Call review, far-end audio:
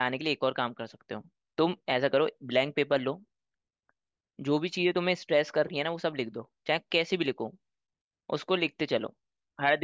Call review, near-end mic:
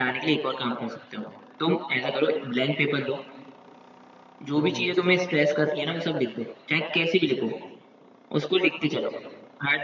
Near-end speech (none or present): present